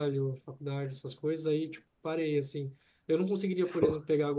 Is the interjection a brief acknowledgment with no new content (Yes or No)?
Yes